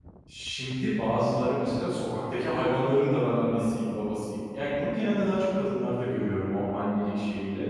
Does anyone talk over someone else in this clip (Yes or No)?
No